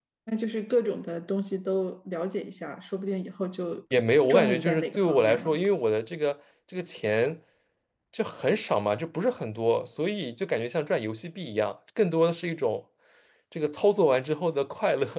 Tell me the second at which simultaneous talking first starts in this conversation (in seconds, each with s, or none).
4.3 s